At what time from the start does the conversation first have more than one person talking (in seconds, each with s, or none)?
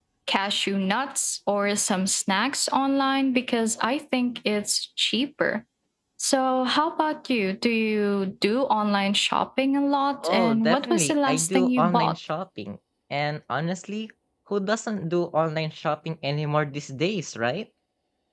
10.2 s